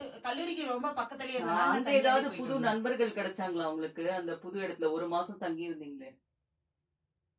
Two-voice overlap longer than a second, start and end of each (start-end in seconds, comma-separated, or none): 1.5-2.7